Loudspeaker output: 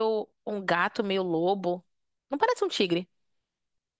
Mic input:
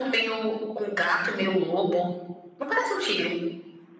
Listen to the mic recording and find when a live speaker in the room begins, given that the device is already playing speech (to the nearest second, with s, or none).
none